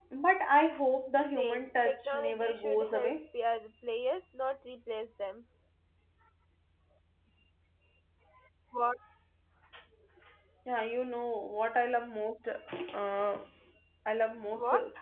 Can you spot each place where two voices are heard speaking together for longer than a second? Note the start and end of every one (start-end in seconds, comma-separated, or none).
1.4-3.2